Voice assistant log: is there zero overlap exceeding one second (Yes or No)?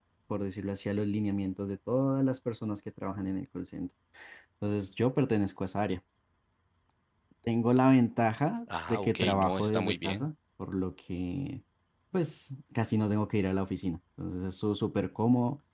No